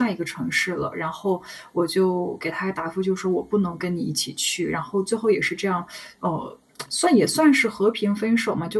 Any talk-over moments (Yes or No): No